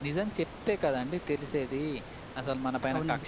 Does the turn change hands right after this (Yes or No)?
No